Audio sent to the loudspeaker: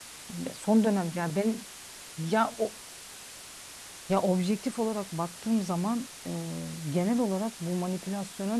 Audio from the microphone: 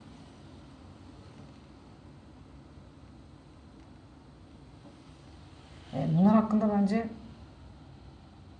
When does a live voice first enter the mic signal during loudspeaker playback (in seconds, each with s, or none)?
5.9 s